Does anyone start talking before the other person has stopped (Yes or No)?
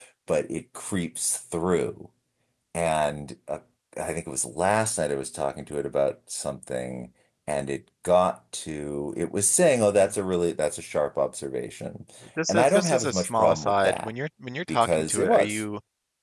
Yes